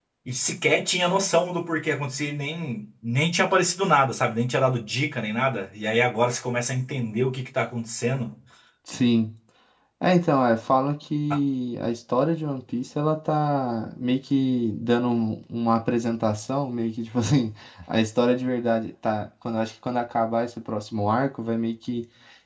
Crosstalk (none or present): none